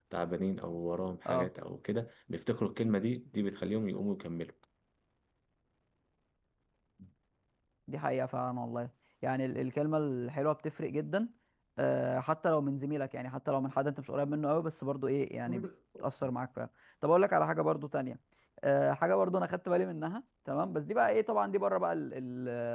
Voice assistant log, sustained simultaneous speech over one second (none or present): none